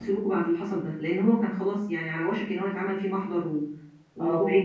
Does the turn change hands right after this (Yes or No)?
Yes